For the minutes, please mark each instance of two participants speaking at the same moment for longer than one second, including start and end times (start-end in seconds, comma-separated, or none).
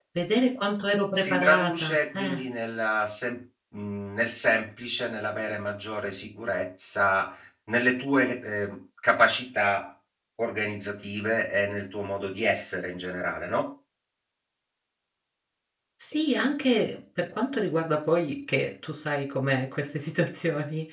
1.1-2.4